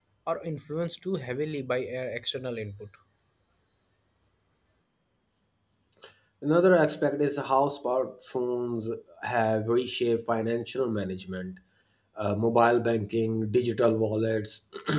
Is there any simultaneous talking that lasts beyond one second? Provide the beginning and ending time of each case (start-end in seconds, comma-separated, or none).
none